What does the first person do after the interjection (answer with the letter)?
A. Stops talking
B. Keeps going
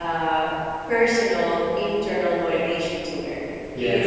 B